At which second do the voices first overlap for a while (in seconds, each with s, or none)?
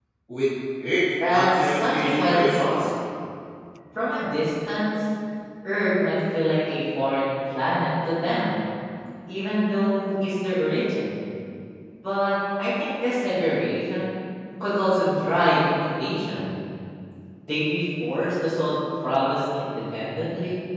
1.3 s